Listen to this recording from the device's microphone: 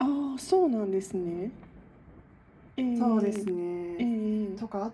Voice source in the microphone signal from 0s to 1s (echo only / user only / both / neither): echo only